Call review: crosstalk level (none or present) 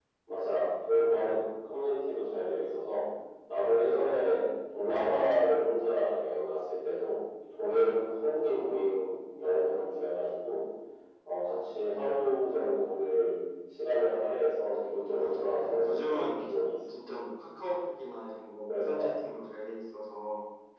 present